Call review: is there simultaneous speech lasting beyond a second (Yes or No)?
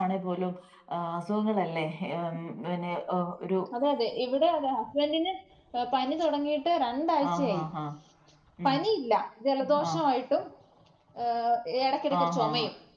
No